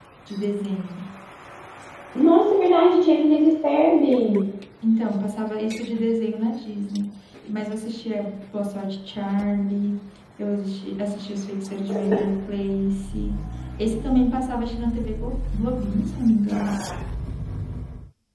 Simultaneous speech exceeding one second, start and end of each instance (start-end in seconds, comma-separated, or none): none